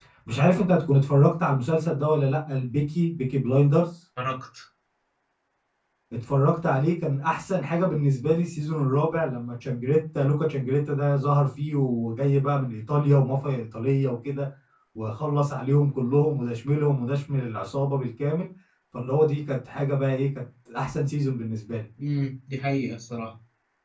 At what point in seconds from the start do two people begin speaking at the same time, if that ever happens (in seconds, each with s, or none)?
none